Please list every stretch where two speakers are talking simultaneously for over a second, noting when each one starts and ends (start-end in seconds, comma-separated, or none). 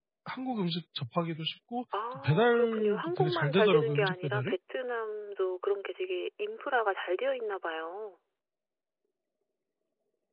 2.1-4.5